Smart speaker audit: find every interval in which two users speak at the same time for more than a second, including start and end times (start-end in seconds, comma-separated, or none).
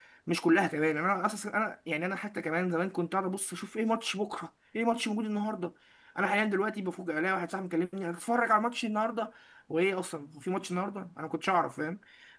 none